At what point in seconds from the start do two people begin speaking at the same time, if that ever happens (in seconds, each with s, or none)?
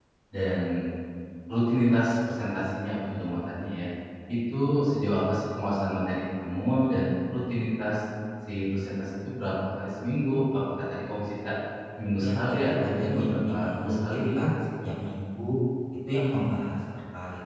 12.2 s